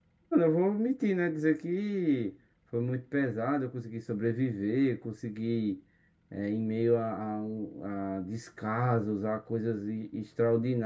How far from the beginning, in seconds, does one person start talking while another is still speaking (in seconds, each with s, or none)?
none